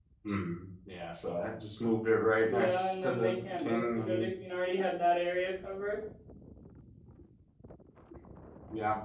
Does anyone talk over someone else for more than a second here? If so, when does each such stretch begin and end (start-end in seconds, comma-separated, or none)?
2.5-4.3